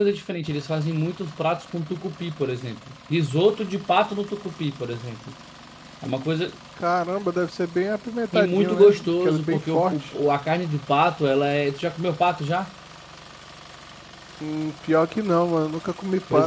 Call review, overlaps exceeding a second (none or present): present